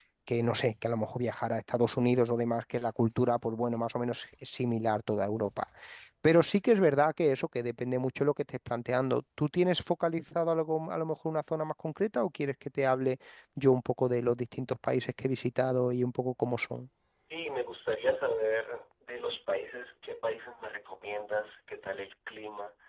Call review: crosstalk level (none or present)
none